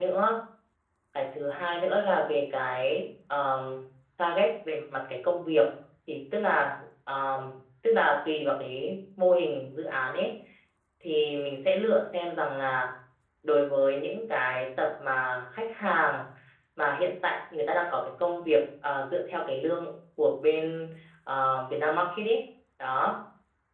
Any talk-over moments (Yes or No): No